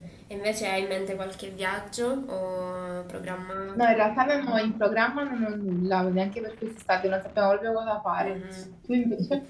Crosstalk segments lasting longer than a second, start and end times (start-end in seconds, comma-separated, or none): none